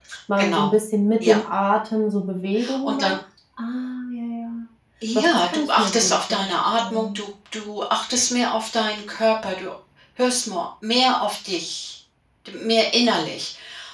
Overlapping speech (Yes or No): Yes